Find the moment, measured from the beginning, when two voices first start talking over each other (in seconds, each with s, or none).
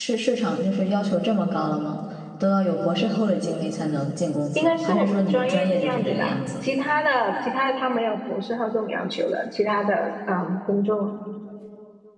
4.6 s